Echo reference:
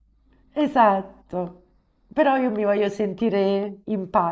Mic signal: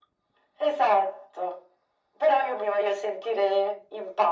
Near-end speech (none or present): none